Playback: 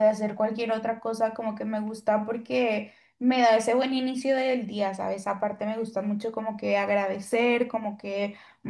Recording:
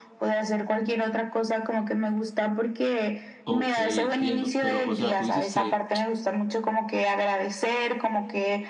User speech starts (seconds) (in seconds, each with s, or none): 3.4 s